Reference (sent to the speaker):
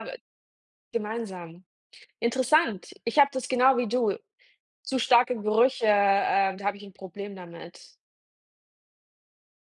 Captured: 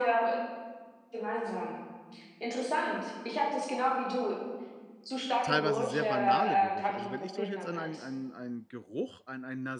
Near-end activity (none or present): present